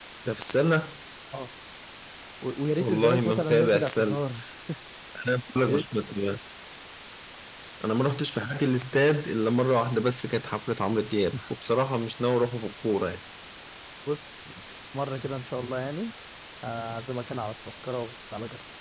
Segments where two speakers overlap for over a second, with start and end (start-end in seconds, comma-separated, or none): 2.8-4.2